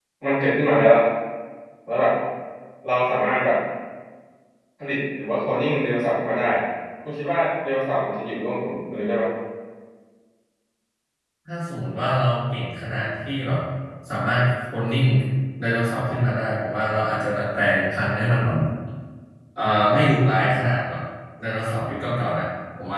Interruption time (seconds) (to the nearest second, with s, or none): none